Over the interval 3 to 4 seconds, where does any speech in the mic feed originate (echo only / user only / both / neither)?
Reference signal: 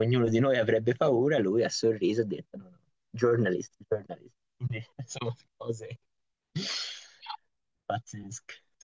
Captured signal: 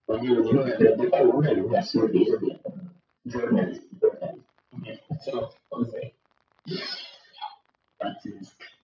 echo only